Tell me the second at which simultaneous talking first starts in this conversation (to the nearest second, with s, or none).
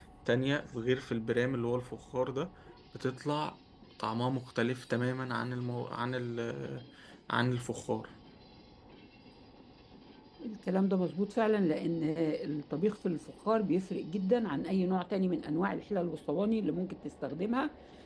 none